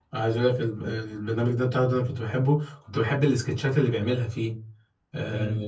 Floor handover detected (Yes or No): Yes